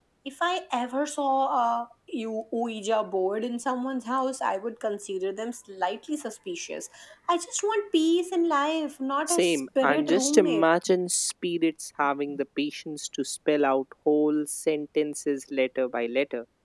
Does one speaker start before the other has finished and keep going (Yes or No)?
Yes